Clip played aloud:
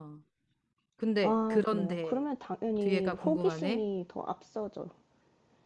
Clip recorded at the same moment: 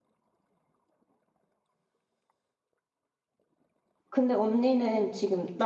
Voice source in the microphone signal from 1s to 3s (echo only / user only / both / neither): neither